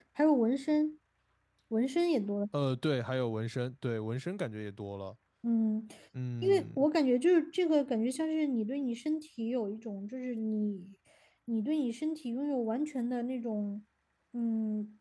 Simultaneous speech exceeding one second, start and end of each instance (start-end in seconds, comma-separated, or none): none